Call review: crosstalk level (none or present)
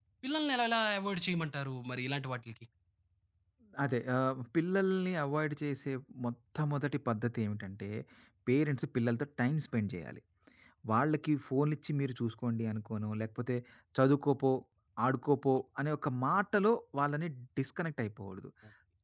none